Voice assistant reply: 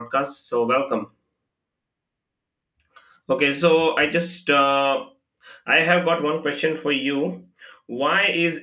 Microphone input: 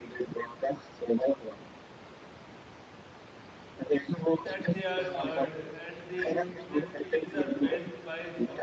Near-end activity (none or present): present